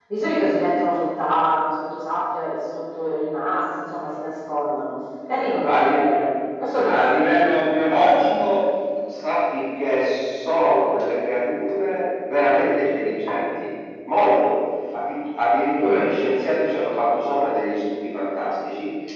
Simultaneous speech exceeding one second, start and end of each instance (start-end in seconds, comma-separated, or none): 6.8-8.2